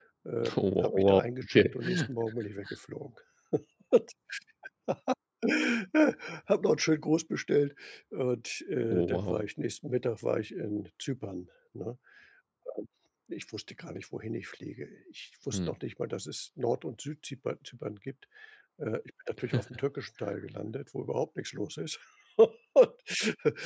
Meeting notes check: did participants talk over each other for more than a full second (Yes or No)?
Yes